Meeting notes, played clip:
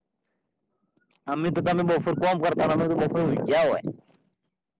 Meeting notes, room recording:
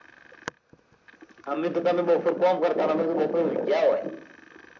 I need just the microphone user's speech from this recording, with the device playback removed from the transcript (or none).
none